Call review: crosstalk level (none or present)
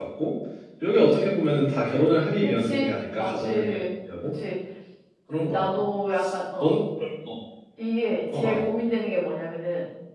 present